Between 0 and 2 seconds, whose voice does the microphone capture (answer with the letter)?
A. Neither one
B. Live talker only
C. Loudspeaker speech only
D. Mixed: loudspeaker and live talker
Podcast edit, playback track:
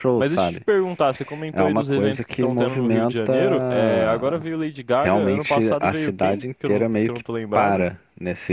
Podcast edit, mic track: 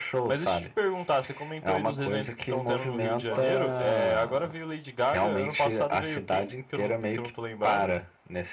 C